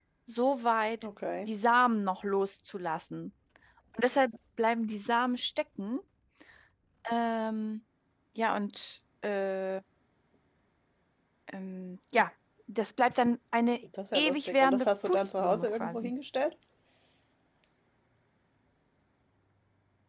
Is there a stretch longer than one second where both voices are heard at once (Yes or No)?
Yes